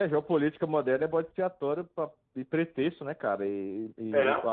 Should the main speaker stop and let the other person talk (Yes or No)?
No